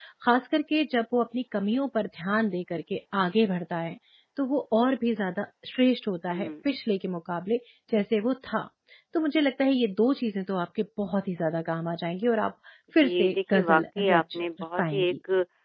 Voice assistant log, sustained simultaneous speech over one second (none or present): present